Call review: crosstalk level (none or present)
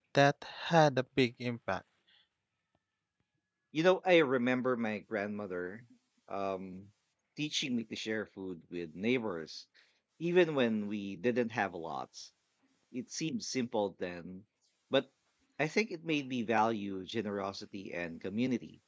none